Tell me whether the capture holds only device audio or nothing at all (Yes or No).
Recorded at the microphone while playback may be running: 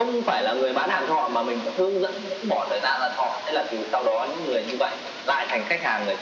Yes